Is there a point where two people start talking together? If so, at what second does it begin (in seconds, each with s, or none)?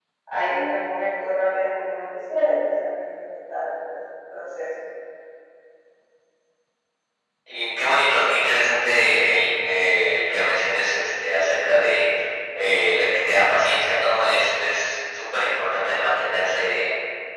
none